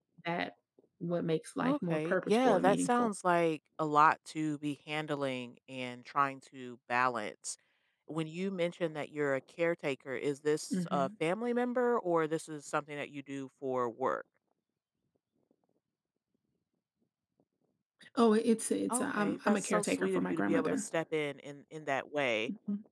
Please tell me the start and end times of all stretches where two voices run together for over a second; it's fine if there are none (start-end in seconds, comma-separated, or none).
1.6-3.1, 18.9-20.8